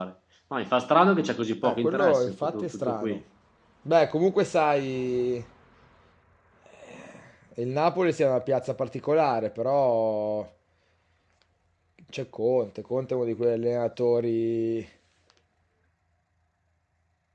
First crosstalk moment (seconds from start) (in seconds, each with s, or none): 1.6 s